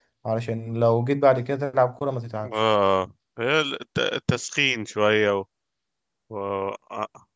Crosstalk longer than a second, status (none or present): none